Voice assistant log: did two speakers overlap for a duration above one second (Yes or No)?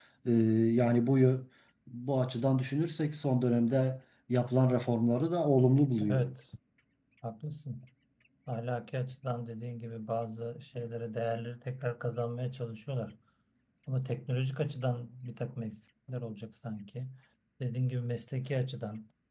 No